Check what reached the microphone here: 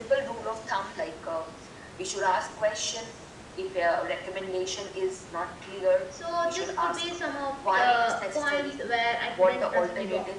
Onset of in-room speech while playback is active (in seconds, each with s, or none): 6.1 s